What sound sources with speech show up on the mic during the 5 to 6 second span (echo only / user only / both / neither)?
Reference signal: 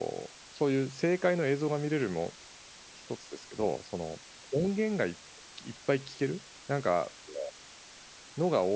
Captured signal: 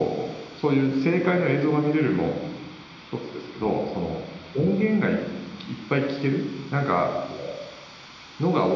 echo only